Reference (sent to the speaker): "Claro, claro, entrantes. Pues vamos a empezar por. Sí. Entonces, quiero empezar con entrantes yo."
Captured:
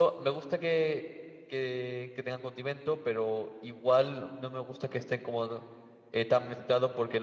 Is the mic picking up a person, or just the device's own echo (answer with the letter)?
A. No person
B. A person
B